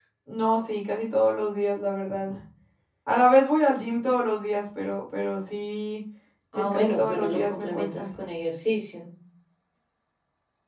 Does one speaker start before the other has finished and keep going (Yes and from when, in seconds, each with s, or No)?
Yes, from 6.5 s